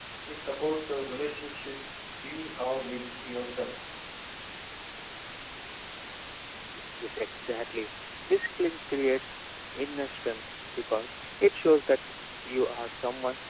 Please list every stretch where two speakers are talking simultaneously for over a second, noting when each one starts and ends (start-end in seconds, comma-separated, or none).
none